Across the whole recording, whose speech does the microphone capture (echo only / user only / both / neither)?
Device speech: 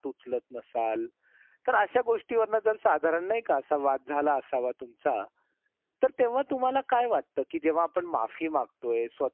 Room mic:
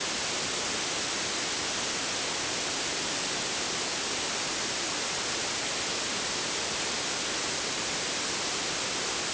neither